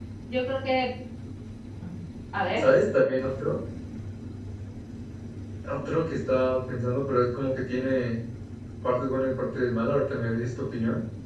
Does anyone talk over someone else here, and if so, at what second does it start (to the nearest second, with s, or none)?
none